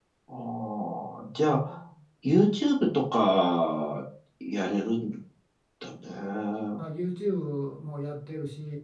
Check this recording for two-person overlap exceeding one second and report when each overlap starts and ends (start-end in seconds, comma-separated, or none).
none